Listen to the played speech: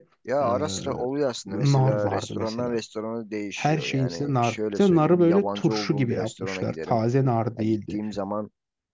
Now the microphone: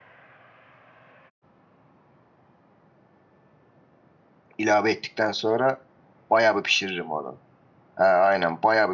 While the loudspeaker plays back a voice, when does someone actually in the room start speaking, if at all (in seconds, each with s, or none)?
4.6 s